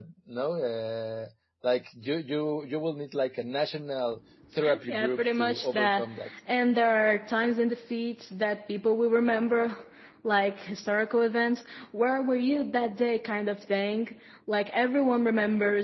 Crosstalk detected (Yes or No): Yes